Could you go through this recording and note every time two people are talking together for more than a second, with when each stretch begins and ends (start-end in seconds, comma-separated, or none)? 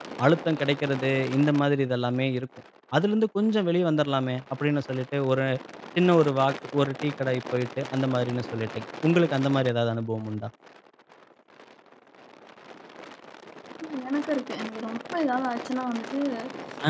none